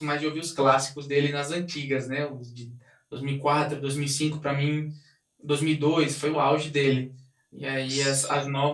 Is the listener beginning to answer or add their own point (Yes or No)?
No